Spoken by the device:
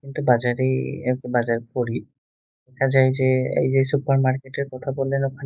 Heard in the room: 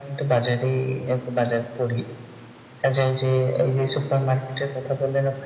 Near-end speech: none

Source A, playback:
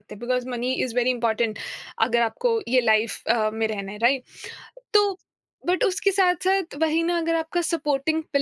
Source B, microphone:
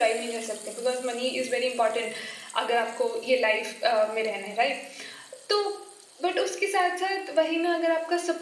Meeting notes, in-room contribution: none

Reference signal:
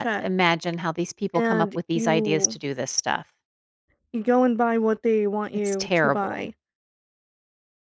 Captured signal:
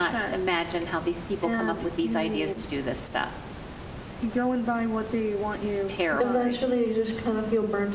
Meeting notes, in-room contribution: present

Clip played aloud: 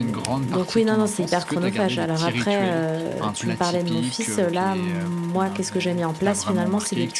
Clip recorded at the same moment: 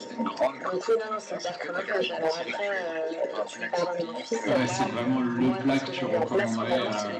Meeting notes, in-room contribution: present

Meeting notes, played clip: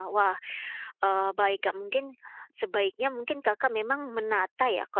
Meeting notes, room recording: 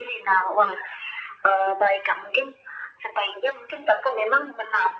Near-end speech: none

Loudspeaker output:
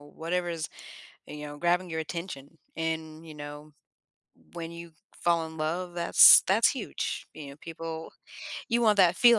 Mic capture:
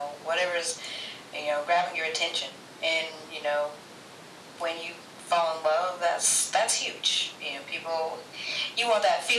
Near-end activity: none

